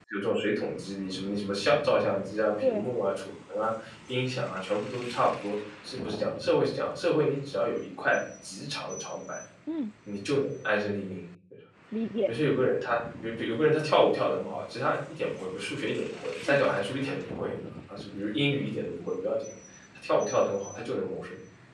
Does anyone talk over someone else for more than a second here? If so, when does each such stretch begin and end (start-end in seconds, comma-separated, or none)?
none